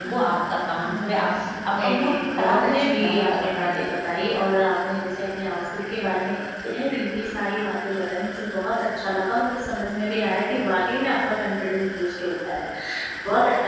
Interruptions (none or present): present